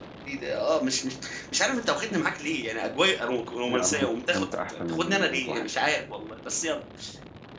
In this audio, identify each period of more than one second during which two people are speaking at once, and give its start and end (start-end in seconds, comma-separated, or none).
3.7-5.6